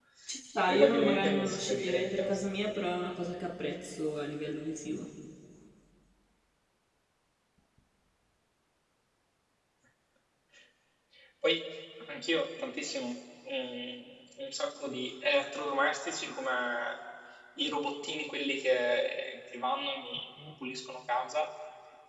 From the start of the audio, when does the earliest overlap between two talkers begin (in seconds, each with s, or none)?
0.7 s